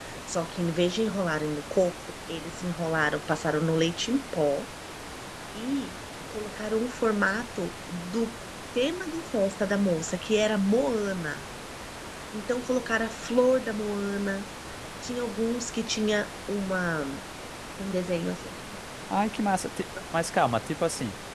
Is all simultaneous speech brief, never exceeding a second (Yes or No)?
Yes